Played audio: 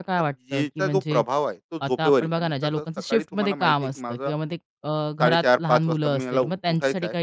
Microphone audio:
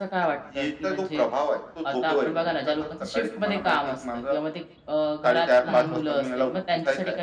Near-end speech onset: 5.7 s

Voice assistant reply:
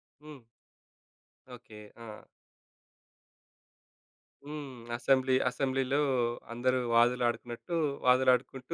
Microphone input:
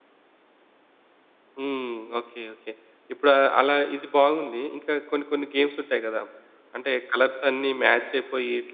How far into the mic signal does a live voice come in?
1.6 s

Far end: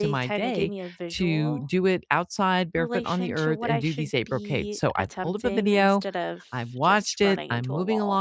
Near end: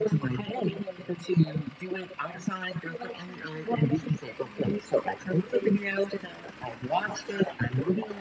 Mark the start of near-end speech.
none

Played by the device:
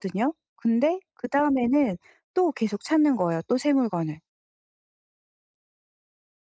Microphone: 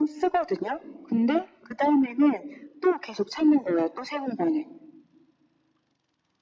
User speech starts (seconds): none

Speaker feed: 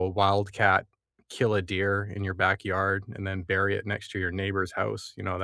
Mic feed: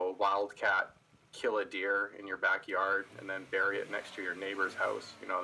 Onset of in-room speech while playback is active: none

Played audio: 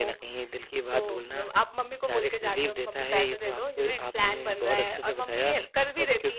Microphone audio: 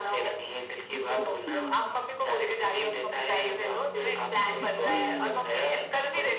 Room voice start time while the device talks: none

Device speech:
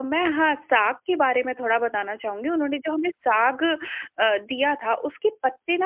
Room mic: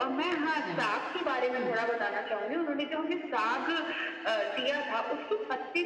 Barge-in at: 0.4 s

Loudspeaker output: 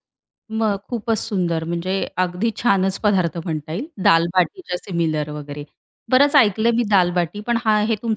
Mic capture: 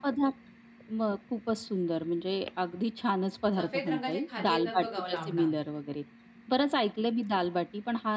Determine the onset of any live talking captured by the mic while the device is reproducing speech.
3.6 s

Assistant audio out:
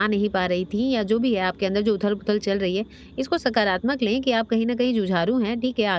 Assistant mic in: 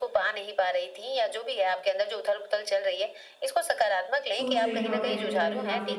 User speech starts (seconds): 4.3 s

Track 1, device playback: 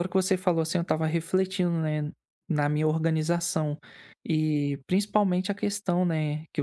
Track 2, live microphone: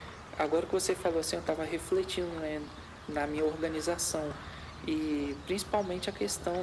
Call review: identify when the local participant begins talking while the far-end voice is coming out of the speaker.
none

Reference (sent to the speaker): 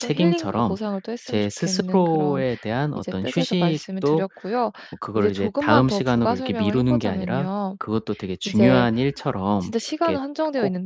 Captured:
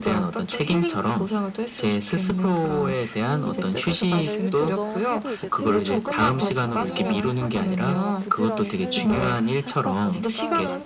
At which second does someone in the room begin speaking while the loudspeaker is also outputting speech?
3.2 s

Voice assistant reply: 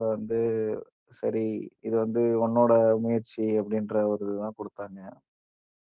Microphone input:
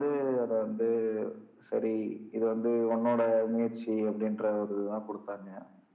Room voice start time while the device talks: none

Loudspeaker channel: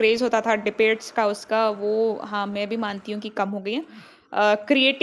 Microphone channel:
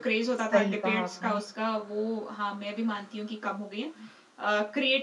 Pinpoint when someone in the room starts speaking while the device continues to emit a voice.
0.3 s

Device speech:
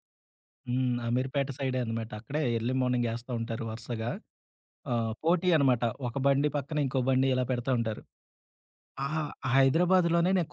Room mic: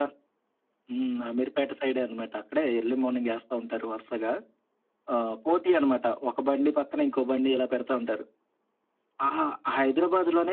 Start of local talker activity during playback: none

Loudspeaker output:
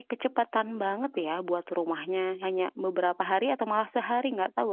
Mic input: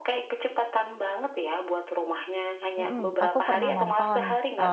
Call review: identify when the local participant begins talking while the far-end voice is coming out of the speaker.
2.8 s

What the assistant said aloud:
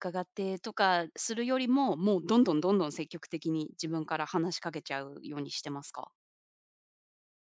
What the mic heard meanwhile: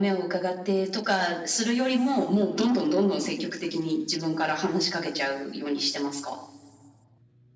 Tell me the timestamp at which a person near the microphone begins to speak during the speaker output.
none

